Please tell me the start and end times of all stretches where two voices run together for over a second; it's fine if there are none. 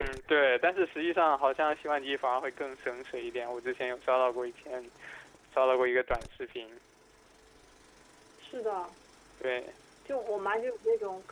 none

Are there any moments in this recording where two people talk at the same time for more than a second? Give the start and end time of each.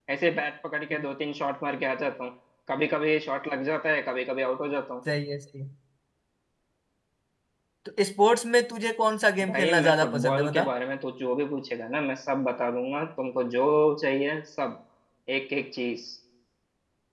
9.5-10.7

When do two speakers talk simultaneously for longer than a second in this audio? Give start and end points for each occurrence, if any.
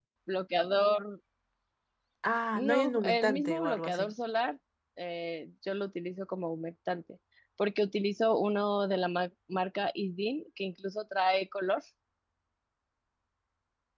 2.6-4.1

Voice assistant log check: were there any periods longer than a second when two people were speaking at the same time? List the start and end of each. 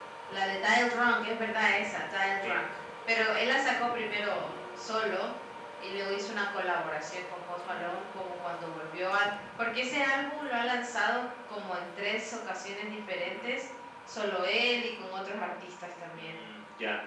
none

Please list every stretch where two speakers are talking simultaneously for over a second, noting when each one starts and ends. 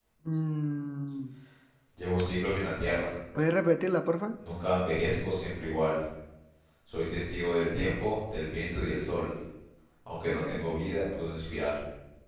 none

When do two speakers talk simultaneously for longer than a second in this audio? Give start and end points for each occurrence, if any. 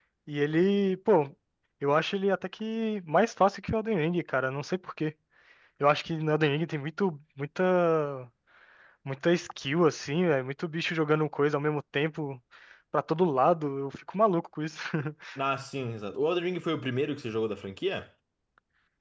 none

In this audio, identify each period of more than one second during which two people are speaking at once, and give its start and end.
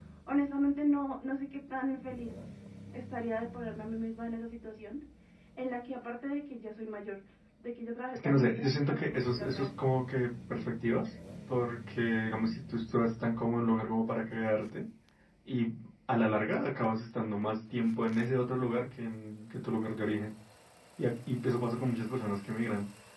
8.2-9.8

